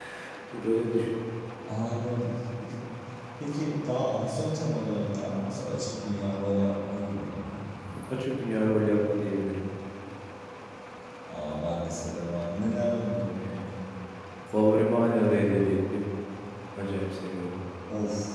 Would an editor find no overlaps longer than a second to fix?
Yes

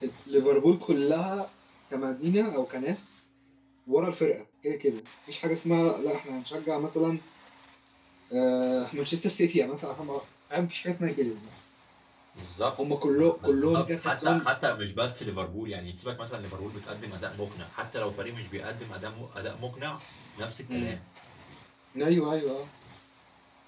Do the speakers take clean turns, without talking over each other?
No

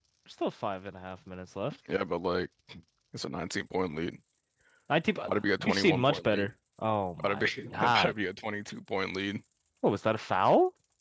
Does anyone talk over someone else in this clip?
Yes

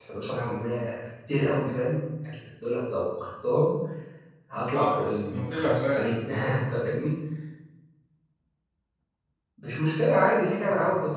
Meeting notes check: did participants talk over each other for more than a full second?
Yes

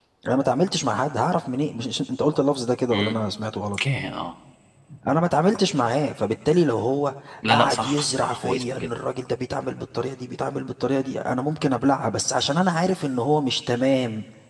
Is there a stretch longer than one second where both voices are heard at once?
Yes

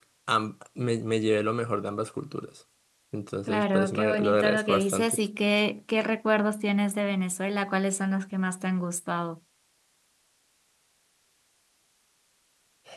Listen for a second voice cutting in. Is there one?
Yes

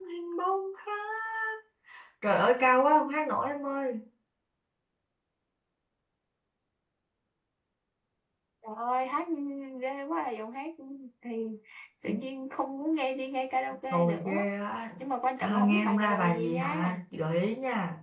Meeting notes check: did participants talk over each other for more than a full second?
Yes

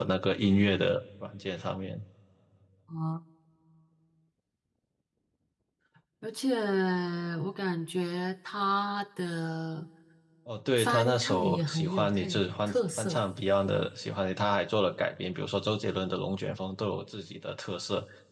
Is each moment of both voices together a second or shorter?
No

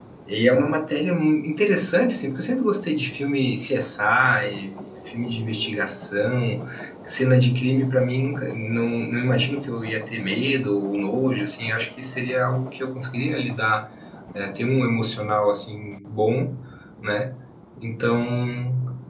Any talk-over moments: No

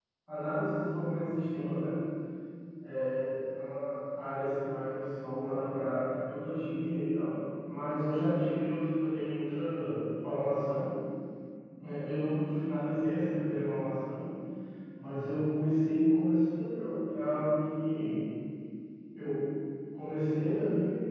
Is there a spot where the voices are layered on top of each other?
No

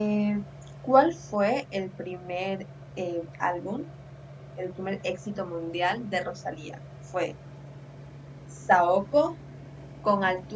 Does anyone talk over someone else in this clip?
No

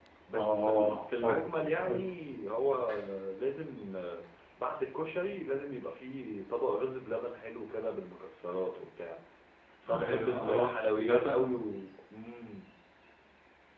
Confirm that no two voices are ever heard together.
No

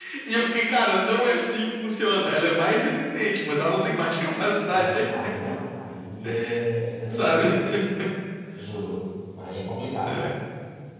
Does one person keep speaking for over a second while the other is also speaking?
No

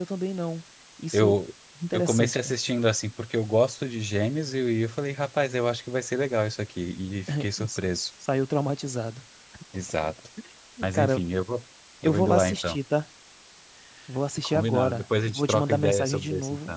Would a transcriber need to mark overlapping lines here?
Yes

